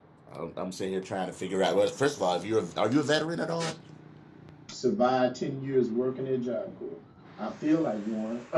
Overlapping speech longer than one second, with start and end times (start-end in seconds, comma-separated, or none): none